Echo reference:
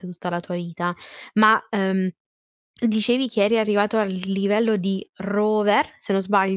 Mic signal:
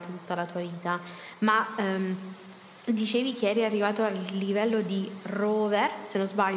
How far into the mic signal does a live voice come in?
none

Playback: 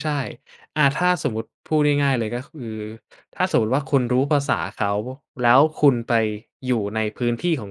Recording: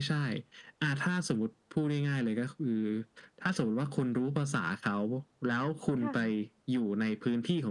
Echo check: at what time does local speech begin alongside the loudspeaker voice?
6.0 s

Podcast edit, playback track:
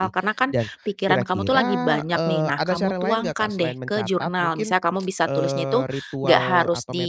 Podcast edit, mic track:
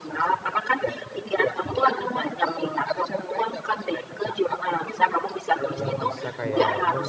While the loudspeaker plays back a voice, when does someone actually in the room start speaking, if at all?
5.7 s

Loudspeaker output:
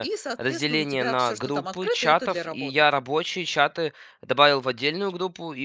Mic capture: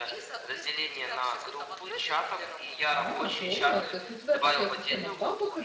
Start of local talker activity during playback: 2.9 s

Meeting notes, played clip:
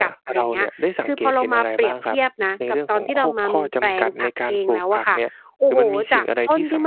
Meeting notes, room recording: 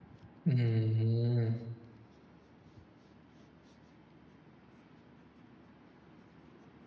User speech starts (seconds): 0.5 s

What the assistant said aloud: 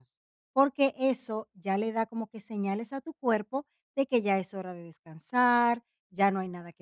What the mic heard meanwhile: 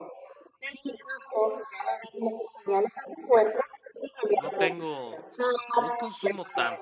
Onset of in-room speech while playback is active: 4.4 s

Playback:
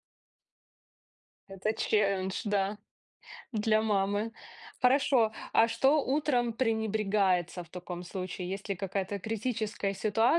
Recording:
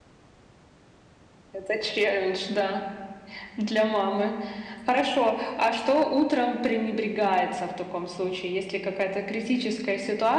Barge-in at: none

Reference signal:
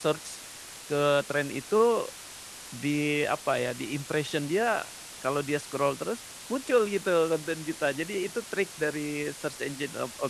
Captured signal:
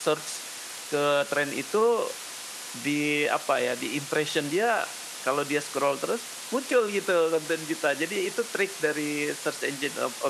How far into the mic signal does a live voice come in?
none

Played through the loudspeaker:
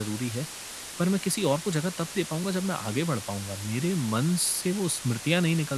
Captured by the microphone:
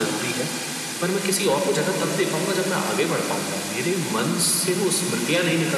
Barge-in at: none

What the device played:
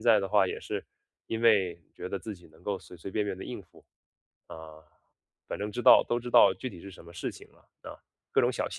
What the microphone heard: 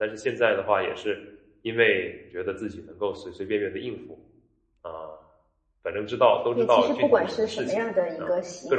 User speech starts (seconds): 6.5 s

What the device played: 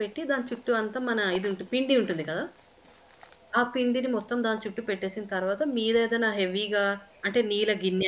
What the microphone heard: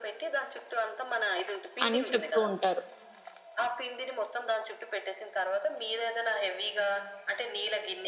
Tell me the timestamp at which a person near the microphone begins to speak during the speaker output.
1.8 s

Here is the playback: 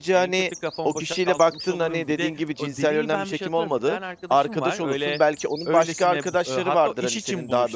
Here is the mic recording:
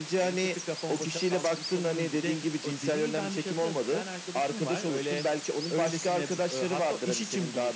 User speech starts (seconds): none

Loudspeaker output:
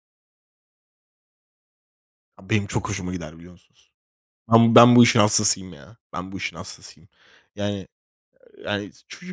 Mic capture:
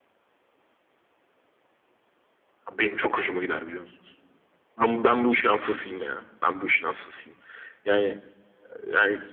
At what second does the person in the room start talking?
none

